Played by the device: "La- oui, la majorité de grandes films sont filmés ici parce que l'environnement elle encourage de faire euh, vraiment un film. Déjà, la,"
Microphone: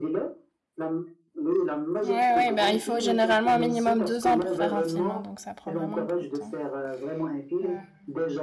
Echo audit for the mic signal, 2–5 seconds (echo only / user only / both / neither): both